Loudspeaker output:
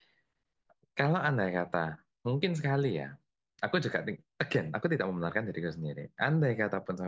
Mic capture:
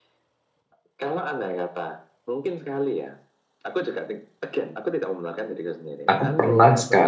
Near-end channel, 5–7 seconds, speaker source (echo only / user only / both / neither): both